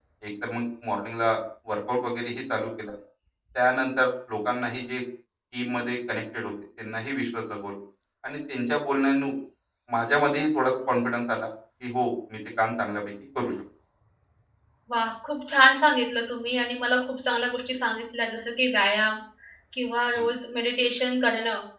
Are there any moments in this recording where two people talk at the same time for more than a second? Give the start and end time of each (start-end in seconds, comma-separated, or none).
none